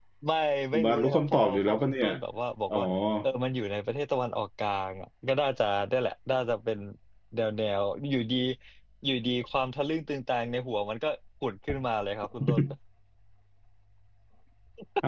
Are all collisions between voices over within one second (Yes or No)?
No